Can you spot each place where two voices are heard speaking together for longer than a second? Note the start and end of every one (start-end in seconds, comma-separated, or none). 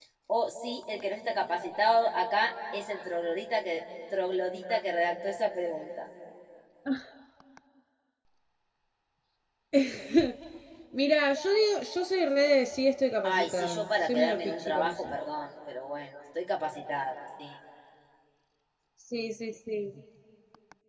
13.2-15.2